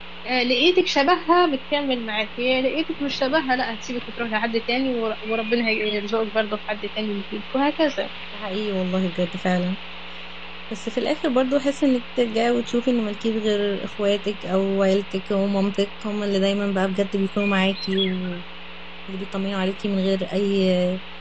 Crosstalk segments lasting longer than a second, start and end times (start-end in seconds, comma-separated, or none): none